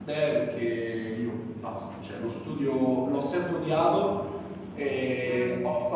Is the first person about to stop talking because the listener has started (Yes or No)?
No